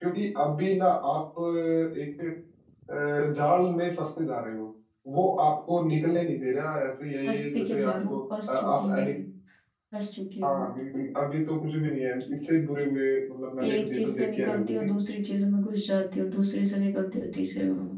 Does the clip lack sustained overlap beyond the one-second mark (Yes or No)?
No